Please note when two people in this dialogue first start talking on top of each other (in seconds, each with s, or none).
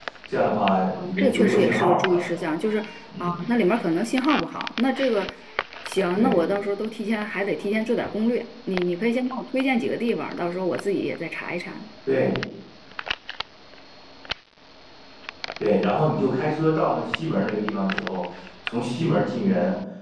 1.0 s